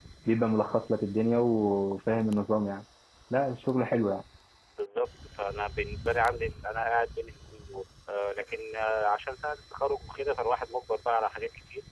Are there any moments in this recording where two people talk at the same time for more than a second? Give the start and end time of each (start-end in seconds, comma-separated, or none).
none